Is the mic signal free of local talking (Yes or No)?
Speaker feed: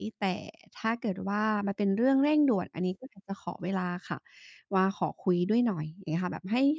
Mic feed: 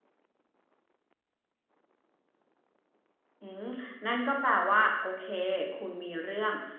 No